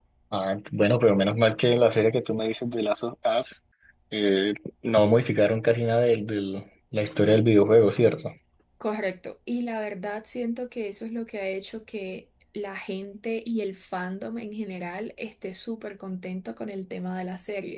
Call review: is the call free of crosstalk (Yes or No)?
Yes